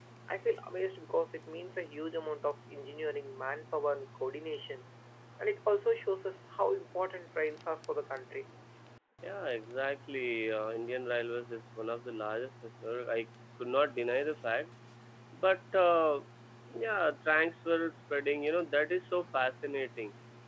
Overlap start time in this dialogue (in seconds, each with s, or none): none